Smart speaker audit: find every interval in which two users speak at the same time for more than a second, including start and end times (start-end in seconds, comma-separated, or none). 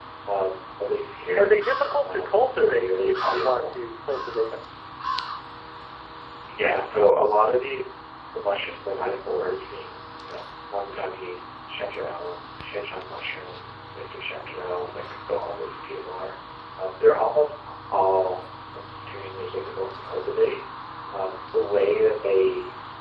2.0-3.7